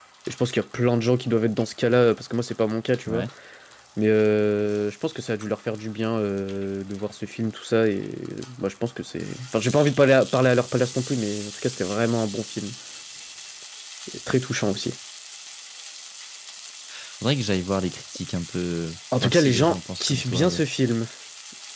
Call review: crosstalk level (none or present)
present